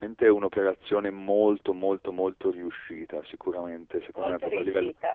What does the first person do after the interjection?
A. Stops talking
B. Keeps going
B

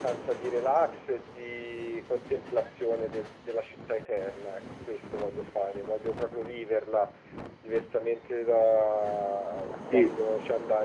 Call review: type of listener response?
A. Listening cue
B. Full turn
A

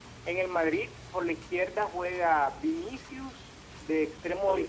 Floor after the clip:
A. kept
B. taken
A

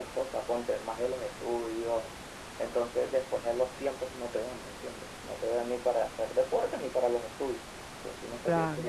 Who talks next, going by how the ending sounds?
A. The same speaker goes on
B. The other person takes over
A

